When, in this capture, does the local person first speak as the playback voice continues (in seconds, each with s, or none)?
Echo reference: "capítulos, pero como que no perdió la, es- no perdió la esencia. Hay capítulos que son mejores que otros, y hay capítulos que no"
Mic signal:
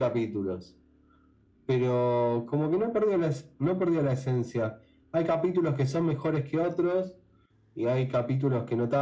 none